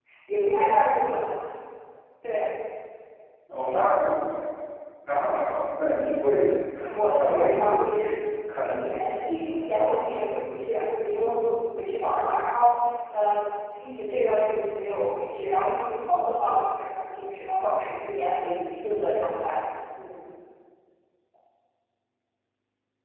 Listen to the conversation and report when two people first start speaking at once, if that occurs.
7 s

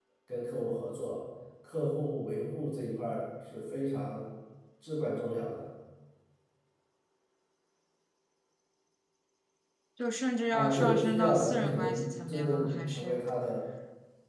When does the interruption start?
11 s

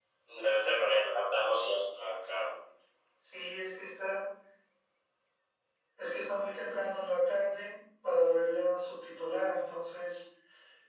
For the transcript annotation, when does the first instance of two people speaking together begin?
none

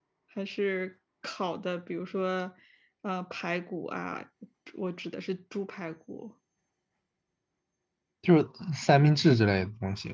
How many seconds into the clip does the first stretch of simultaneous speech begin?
none

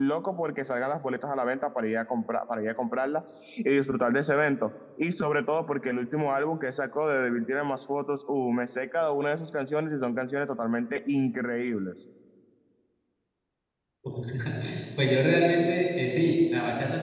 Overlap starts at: none

